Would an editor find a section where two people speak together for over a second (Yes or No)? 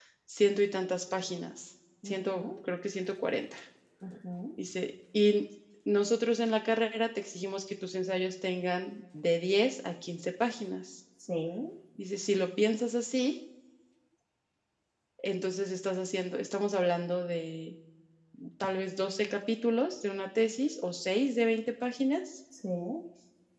No